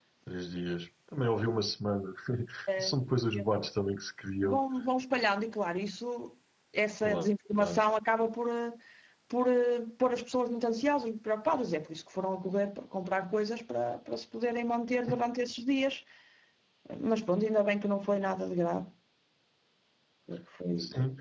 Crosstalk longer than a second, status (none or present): none